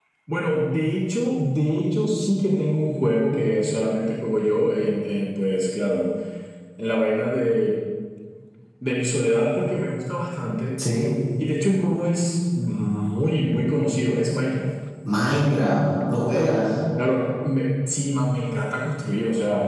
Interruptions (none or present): none